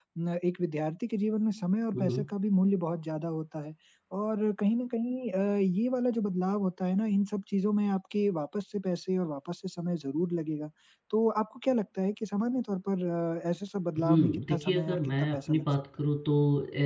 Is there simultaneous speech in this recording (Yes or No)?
Yes